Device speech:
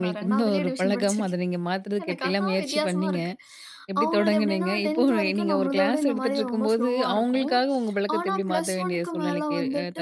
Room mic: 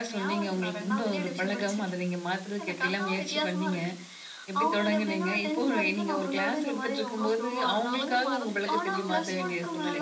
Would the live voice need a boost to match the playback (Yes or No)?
Yes